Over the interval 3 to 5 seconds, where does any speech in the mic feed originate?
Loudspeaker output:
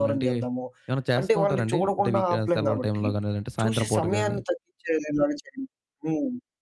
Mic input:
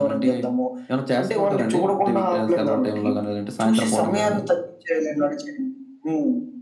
echo only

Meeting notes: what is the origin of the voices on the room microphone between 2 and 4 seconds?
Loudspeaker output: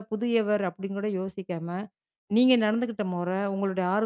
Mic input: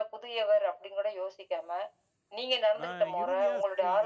both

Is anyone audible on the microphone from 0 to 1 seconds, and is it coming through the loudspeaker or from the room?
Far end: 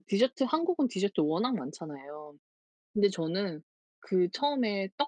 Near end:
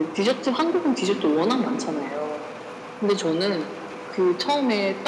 echo only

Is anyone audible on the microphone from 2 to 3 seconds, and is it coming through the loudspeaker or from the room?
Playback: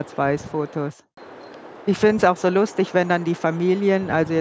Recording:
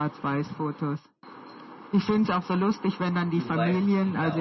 echo only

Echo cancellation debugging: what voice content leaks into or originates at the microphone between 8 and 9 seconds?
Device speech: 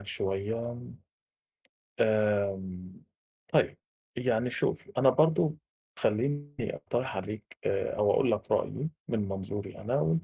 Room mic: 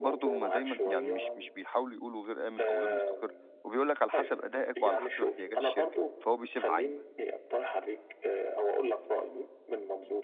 echo only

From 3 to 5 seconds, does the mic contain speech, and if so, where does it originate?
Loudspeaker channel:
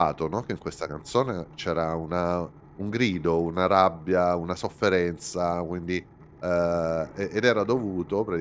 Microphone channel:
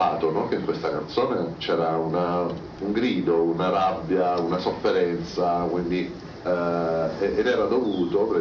echo only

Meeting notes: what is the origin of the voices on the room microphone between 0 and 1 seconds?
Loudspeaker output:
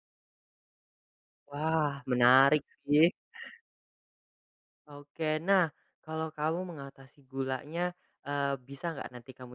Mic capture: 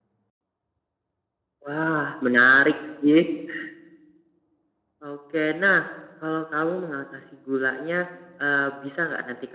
neither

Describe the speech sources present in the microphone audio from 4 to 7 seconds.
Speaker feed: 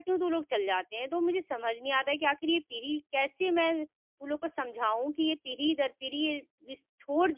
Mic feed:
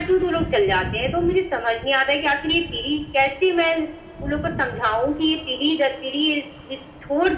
echo only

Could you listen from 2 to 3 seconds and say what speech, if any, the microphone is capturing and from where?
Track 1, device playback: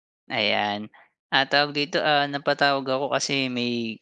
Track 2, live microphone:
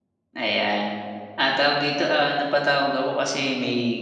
echo only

